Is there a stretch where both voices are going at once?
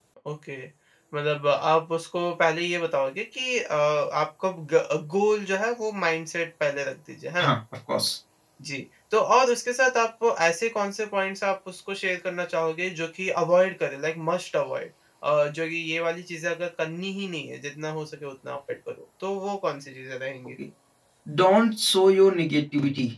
No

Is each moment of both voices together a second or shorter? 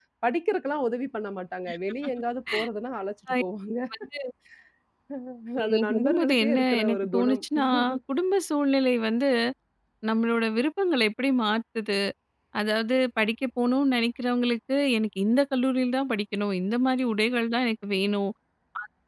No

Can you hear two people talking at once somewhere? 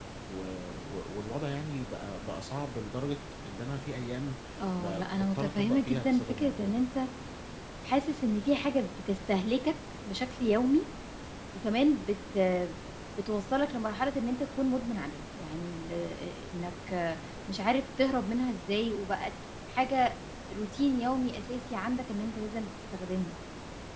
Yes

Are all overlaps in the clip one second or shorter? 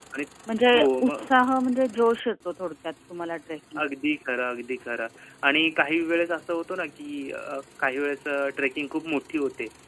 Yes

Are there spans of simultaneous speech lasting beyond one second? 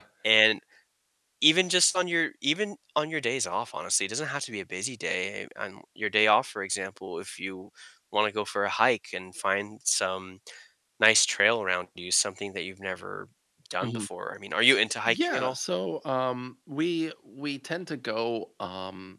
No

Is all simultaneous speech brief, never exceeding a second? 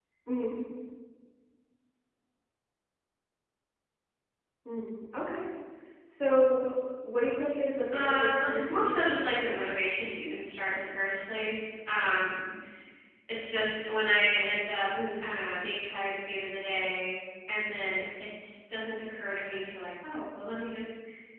No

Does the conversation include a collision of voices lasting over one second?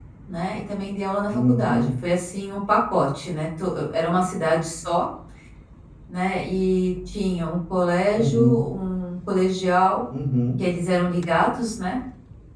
No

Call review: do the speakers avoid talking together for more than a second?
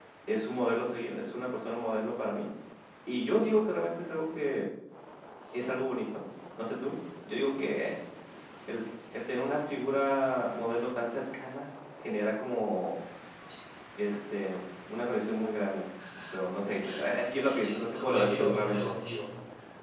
No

